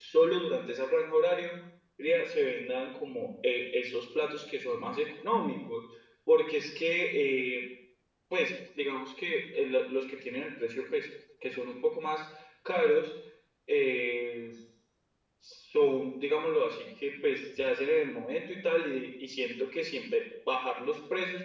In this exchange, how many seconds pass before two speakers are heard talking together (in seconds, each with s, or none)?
none